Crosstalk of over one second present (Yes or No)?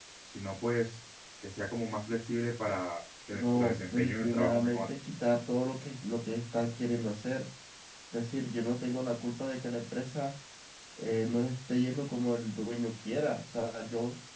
Yes